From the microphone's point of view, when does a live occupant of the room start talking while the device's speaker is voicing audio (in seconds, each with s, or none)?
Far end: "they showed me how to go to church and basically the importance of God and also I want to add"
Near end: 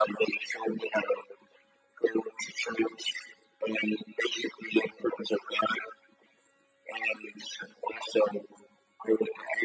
none